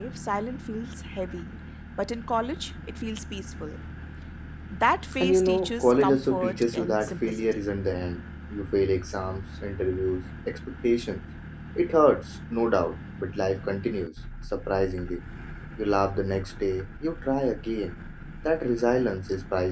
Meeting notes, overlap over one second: present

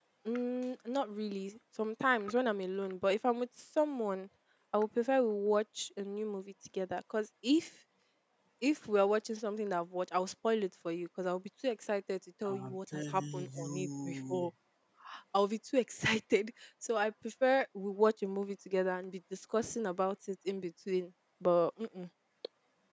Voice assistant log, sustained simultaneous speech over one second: present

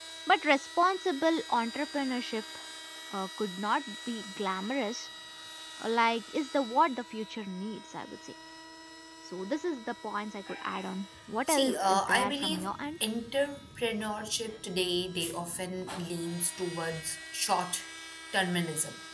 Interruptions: present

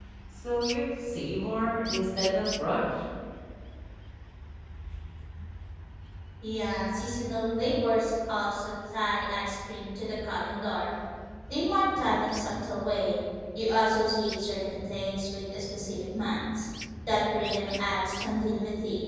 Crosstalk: none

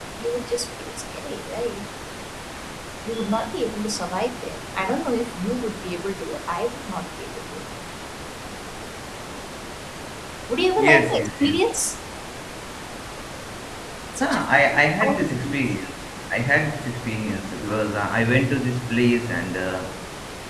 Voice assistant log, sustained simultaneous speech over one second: present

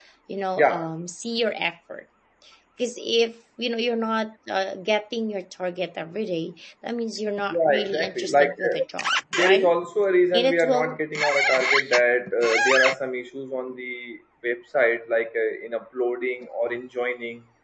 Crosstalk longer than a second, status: present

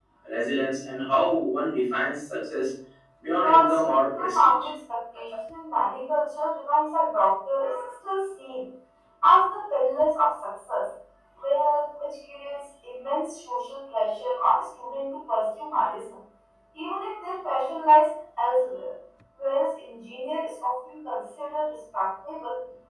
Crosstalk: present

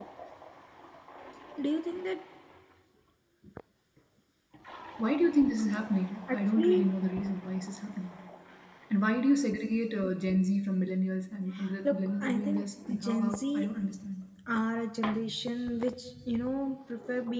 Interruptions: present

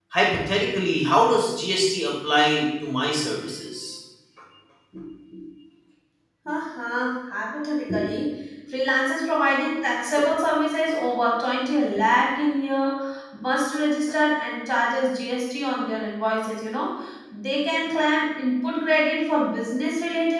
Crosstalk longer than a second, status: none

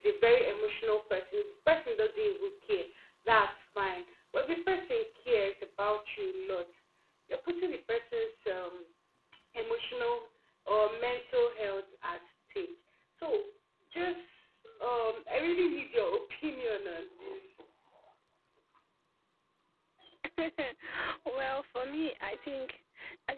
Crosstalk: none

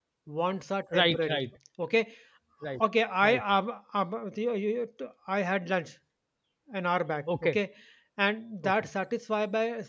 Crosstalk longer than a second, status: none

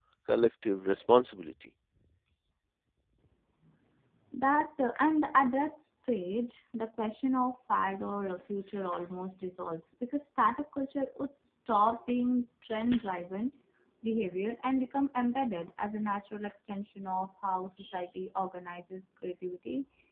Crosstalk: none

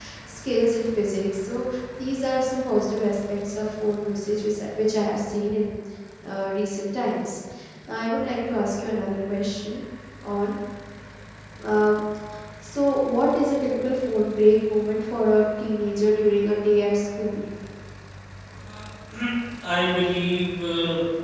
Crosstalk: none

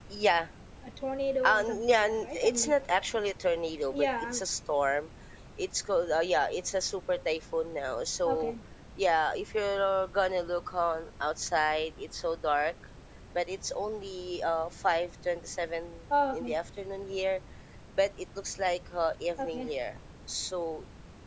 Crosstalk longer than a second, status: present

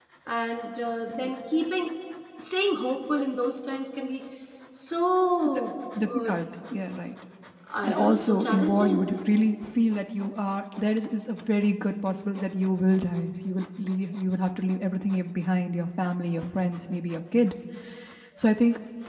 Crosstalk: present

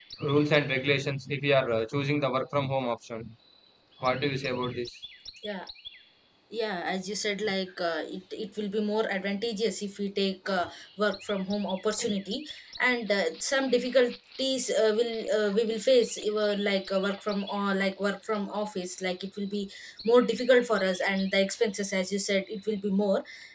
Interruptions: none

